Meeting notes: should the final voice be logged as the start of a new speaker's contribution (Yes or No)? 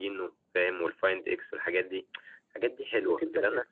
Yes